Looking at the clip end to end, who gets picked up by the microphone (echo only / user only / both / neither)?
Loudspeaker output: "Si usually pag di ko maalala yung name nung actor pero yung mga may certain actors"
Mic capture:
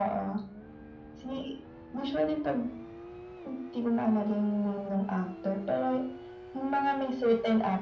echo only